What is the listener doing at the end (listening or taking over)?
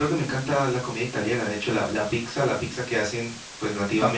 taking over